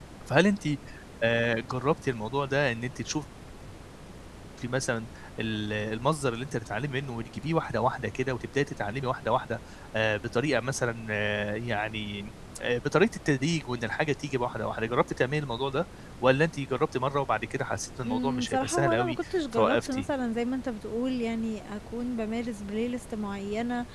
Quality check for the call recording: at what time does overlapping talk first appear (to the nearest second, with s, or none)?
18 s